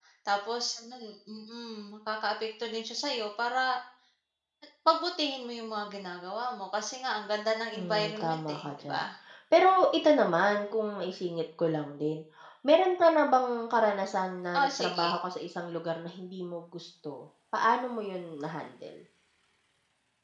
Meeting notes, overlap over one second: present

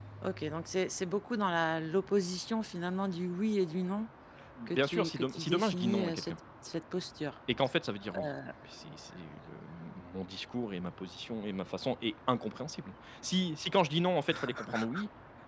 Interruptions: present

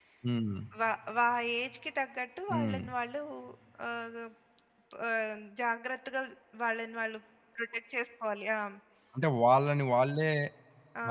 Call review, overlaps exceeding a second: none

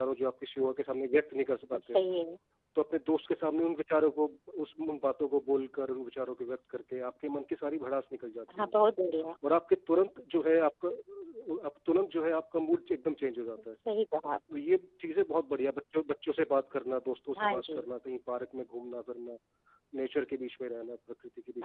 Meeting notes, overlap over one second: none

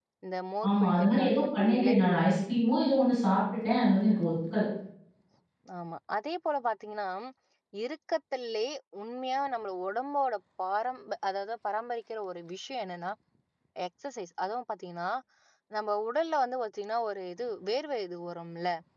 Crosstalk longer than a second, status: present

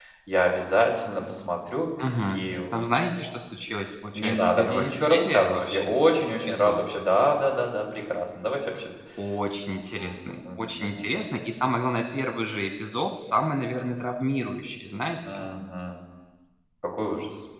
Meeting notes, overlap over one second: present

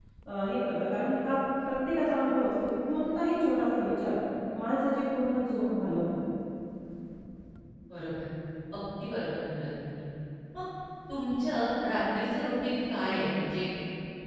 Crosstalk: none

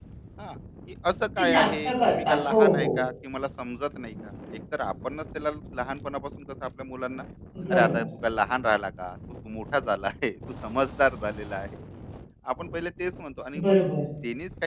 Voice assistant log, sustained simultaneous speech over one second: present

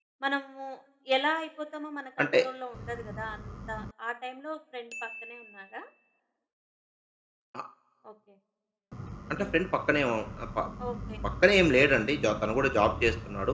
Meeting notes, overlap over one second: none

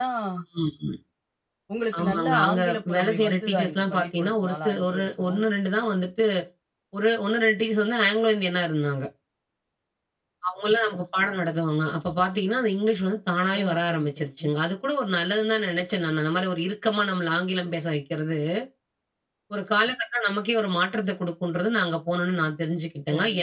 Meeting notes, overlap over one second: present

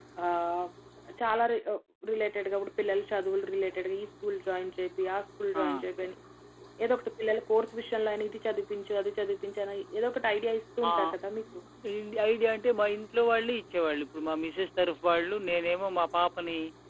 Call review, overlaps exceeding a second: none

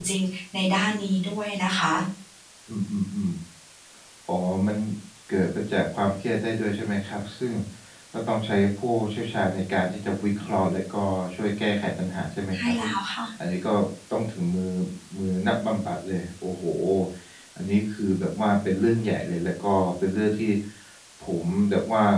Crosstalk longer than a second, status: none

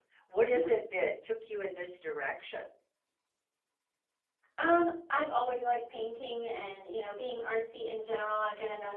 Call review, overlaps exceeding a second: none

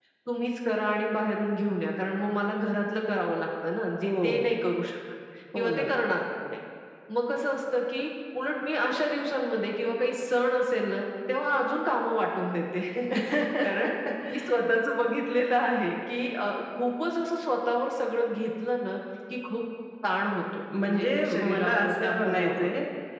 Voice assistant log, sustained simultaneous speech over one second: present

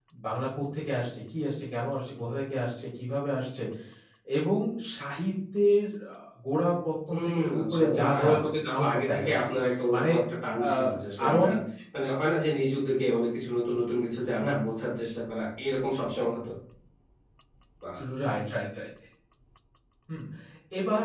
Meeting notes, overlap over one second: present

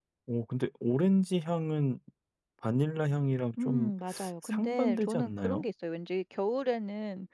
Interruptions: present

